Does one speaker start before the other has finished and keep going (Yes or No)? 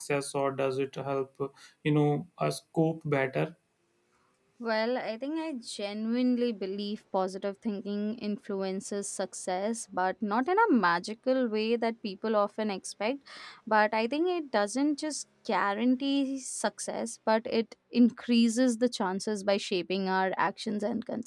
No